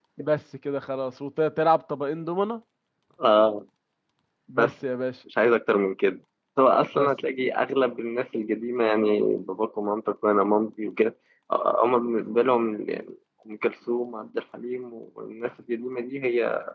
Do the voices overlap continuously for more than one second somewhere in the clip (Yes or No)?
No